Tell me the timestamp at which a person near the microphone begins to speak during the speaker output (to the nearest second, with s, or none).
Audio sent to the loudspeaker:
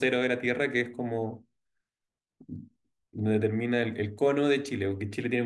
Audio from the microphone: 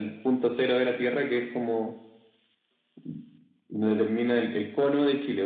none